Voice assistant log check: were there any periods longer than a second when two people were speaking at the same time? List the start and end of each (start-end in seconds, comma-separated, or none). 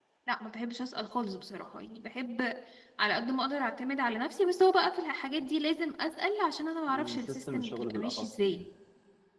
6.9-8.6